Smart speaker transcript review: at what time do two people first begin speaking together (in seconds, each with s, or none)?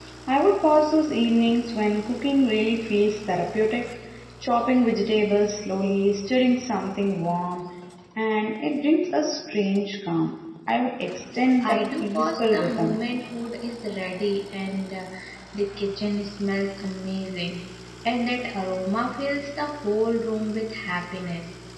11.6 s